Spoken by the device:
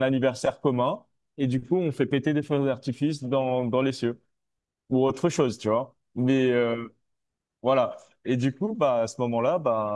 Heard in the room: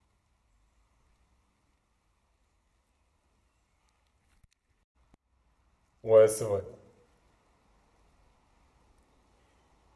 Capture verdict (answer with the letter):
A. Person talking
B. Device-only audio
A